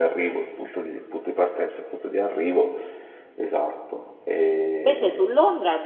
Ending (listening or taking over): taking over